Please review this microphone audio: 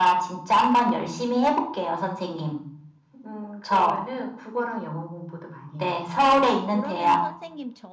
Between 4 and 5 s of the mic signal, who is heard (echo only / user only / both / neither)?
echo only